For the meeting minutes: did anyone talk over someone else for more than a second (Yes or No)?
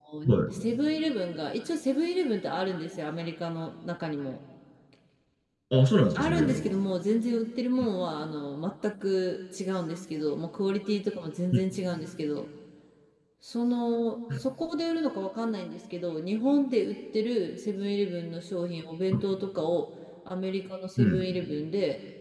No